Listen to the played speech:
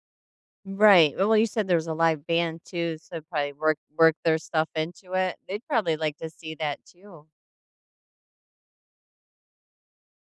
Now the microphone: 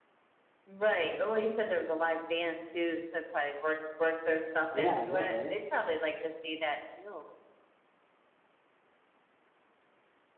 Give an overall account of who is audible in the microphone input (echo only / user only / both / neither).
both